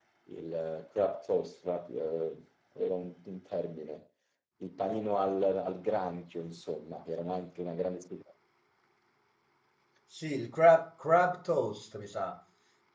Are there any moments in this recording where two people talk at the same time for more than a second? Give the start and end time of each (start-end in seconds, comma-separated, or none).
none